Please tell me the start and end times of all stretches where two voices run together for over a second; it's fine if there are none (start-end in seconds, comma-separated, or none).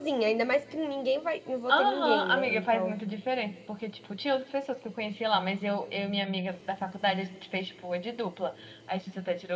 1.7-3.0